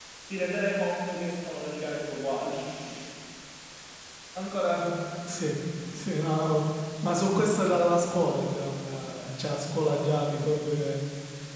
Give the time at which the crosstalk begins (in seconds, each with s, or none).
none